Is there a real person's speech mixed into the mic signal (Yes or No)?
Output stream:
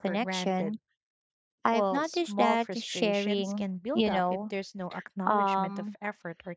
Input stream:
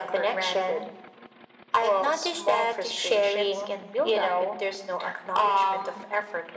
No